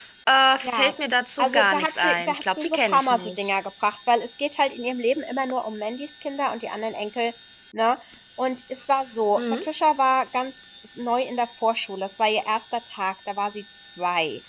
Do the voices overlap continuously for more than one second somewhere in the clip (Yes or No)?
Yes